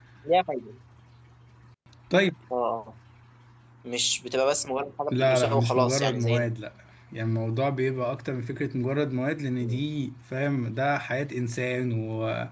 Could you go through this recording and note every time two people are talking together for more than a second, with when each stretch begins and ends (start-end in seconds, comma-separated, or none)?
5.1-6.5